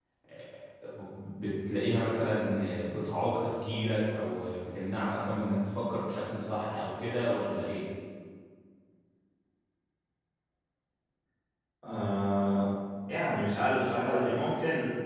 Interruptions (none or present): none